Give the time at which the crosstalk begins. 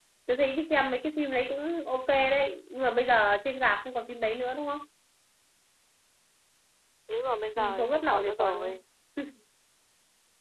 8 s

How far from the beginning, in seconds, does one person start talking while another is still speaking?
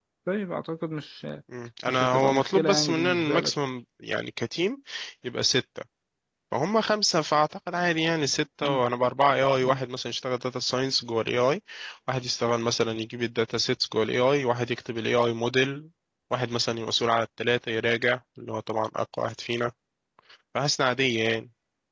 2 s

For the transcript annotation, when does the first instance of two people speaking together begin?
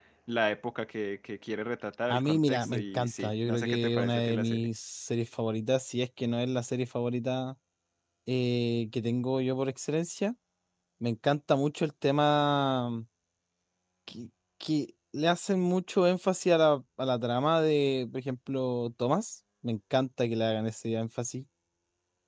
2 s

